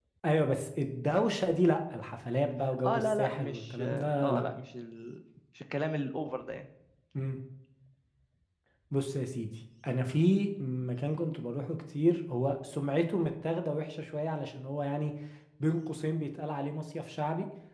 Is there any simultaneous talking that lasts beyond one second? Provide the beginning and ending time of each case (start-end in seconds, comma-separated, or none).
2.8-4.4